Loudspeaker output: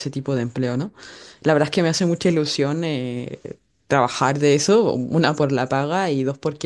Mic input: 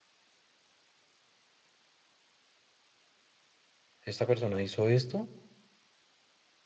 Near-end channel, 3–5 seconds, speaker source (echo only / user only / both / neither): user only